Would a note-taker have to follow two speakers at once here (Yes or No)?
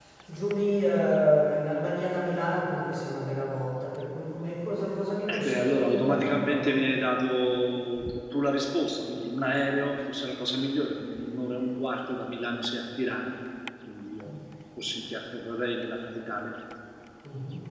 Yes